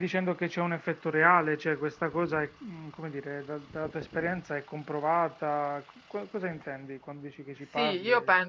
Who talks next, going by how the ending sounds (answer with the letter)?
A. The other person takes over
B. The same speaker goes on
A